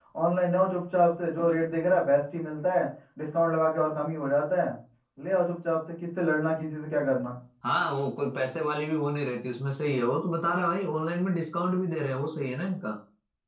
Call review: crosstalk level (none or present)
none